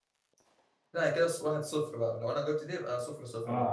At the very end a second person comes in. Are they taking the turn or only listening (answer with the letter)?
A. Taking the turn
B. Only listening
A